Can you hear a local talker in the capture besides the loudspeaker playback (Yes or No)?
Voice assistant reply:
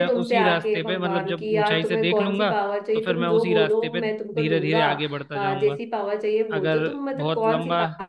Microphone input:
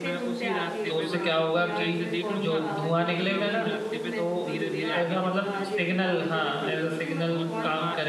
Yes